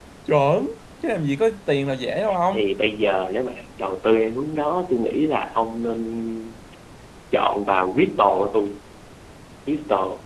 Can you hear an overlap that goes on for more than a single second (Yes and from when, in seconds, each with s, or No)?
No